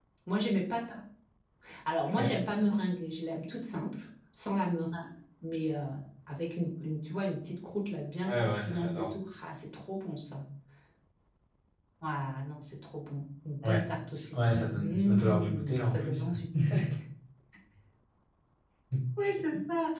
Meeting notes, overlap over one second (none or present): present